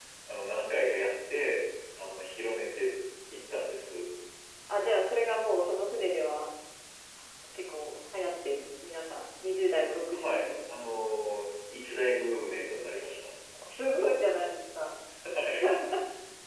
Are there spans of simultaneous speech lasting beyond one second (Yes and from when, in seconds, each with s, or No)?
No